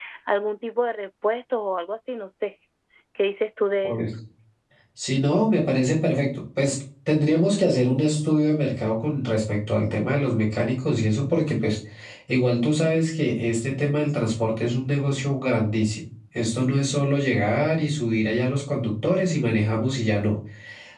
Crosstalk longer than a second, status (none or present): none